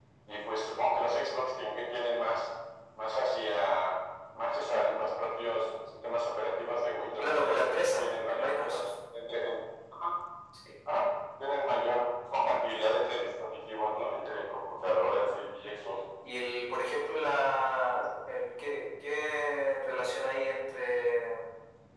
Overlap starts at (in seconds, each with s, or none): 7.2 s